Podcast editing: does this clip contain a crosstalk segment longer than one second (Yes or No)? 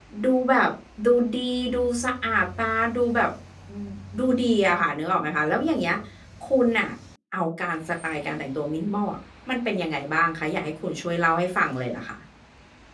No